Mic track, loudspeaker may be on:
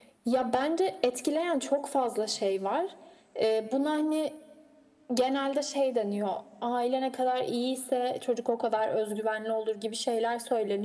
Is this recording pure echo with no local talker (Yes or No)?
Yes